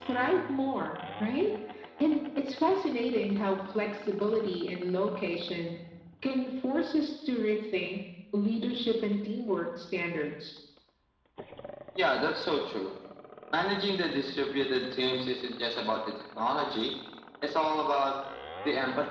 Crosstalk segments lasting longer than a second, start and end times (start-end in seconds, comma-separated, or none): none